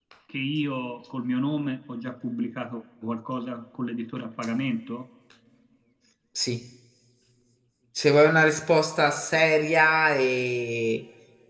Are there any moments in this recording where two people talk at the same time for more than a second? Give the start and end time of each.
none

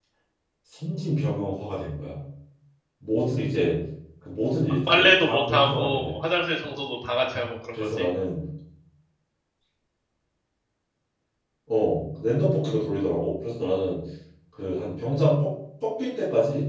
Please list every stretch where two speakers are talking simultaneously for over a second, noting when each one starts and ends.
4.9-6.2

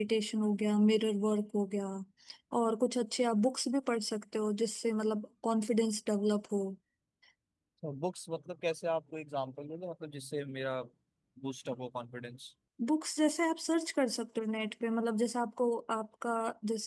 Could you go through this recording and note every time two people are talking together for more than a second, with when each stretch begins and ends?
none

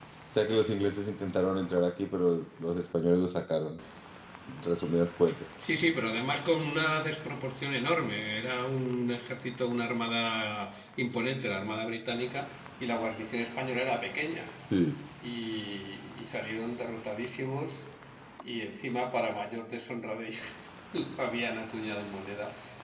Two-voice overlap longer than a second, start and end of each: none

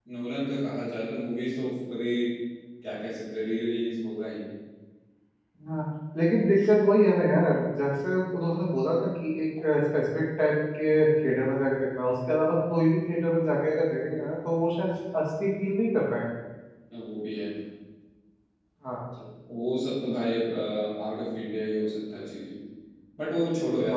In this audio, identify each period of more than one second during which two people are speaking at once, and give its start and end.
none

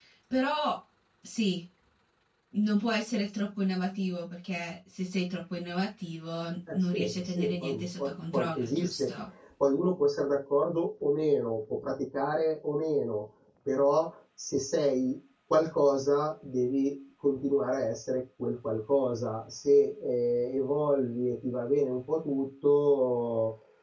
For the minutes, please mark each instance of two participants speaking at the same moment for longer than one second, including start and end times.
6.7-9.1

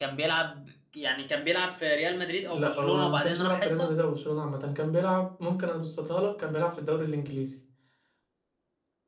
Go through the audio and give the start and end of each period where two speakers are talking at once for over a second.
2.5-3.9

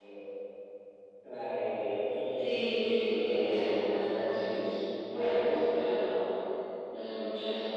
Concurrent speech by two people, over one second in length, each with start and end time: 3.0-4.7

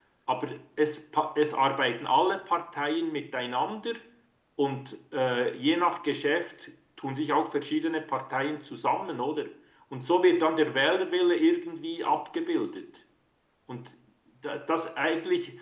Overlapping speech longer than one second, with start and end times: none

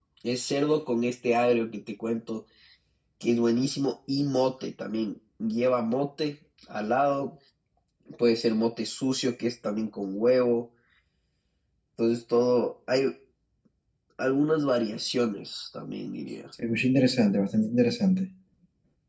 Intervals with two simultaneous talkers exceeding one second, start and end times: none

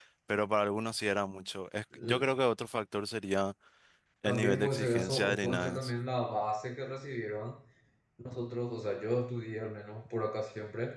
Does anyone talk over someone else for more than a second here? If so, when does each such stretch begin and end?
4.2-5.9

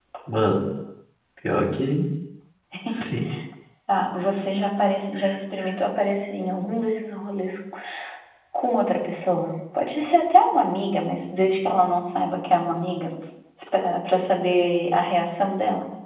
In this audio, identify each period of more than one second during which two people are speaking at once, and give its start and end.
none

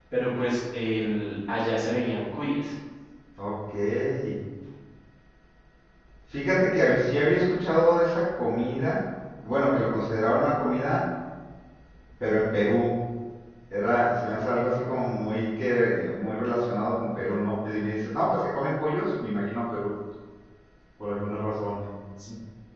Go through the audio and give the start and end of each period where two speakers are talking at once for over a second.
none

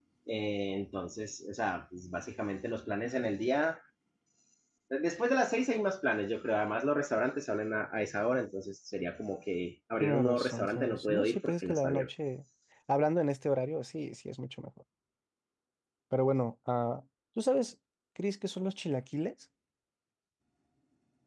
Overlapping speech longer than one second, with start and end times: 10.0-12.1

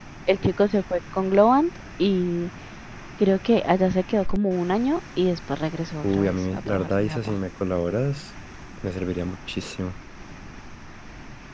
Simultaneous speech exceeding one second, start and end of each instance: 6.0-7.3

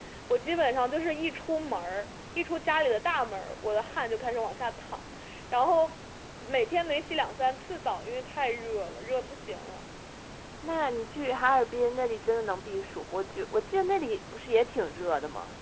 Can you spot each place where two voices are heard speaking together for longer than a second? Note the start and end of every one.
none

